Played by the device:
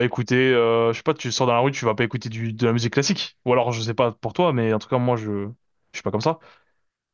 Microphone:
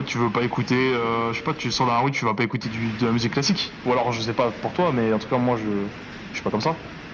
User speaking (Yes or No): No